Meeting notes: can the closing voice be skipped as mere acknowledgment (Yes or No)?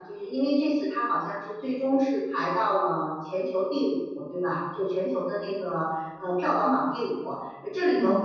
Yes